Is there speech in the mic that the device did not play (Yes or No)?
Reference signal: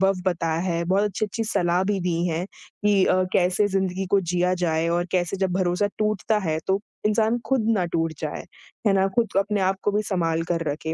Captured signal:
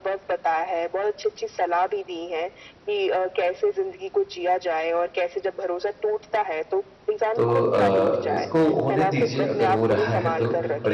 Yes